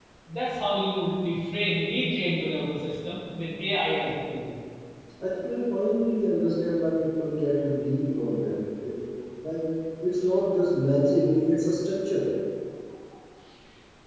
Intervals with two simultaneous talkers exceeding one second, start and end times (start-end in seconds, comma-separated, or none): none